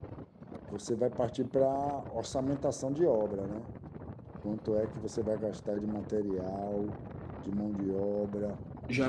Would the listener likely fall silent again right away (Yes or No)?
No